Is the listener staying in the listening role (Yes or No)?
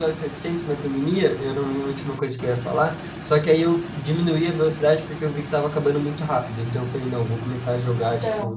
Yes